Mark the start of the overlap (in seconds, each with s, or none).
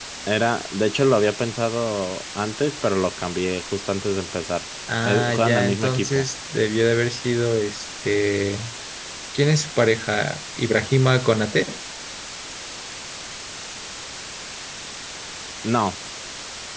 4.9 s